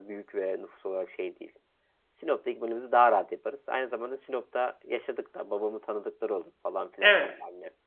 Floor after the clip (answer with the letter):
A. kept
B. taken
B